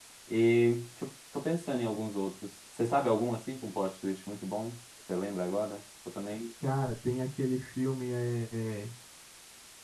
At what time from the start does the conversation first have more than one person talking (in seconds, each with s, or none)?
none